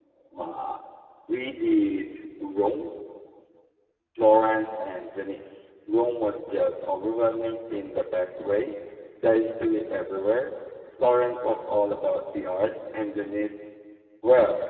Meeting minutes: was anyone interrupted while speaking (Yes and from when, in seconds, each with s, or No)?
No